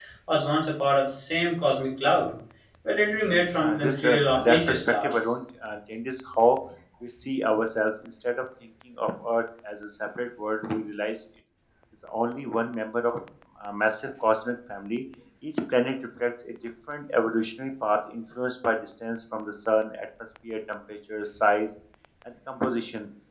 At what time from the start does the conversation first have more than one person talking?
3.6 s

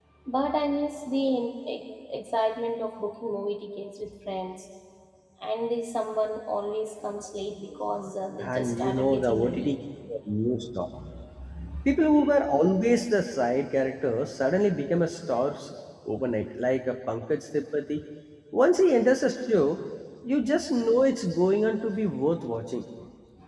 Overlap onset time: 8.4 s

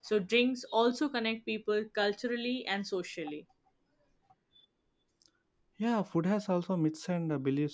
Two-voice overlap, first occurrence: none

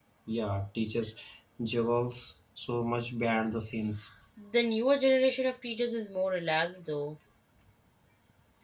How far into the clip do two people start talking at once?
none

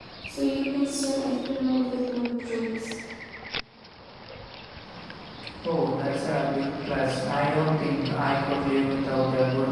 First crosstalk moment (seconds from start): none

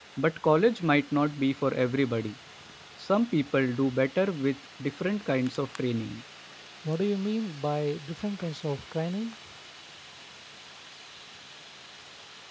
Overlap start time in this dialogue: none

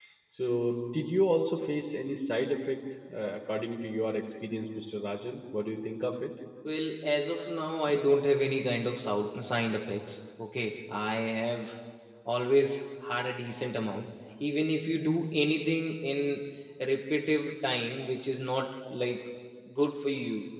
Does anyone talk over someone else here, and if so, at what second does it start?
none

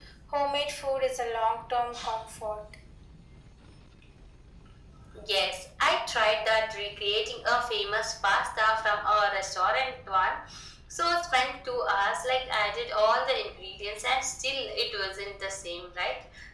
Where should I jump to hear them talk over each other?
none

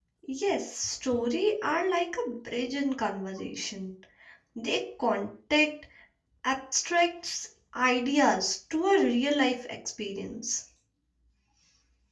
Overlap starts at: none

